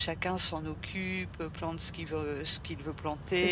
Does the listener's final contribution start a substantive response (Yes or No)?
No